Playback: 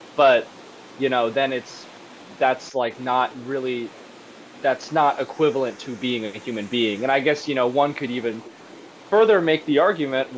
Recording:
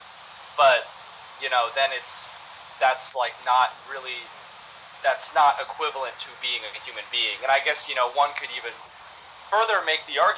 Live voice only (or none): none